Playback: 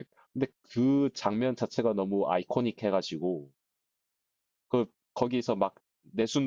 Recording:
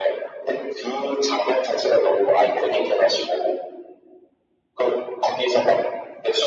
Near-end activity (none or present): none